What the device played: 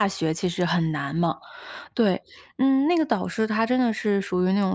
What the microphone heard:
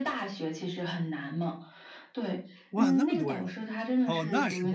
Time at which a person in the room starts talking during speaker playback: 2.7 s

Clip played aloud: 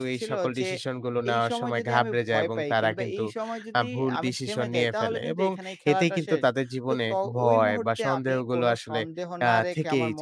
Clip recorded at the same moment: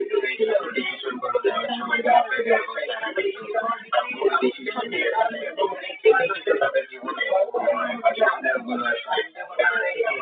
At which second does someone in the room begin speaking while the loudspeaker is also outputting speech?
none

